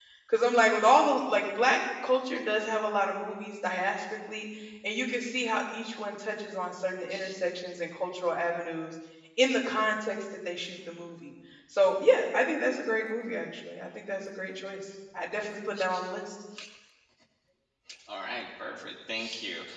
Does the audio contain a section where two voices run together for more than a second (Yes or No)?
No